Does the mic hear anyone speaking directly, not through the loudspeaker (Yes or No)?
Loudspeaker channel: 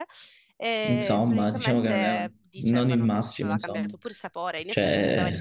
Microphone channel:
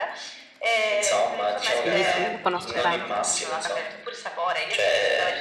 Yes